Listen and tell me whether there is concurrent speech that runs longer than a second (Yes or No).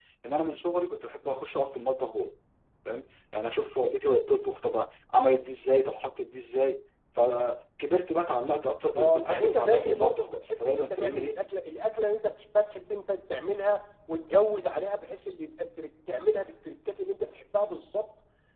Yes